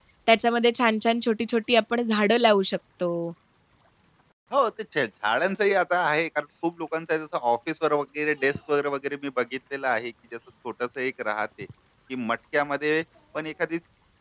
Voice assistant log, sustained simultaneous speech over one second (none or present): none